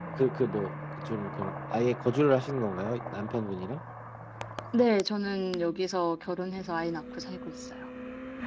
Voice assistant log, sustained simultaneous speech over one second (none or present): none